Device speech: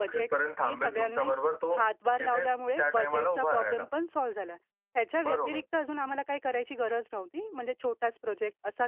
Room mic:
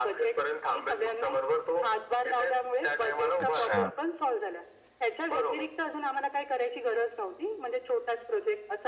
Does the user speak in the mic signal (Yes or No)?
Yes